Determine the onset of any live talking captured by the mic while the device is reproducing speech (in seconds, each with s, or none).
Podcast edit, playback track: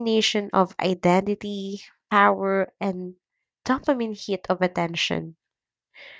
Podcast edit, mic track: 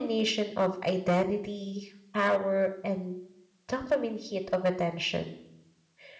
none